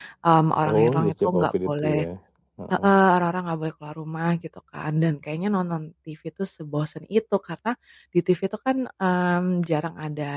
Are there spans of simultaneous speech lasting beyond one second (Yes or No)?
Yes